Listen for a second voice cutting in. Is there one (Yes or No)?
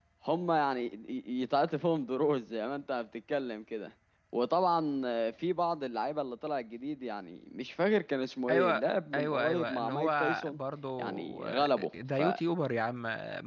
Yes